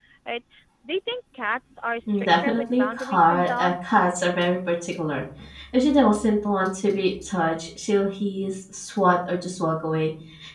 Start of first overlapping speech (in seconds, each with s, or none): 2.1 s